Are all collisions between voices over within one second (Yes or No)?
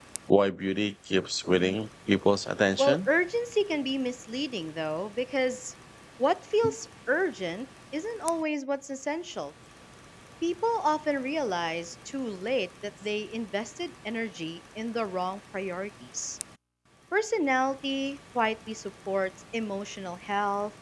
Yes